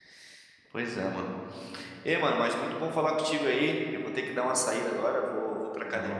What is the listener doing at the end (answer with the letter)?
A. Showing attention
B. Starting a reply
A